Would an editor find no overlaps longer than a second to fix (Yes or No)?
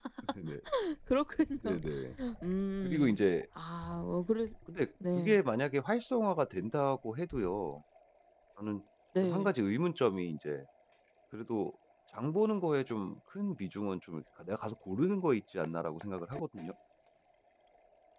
Yes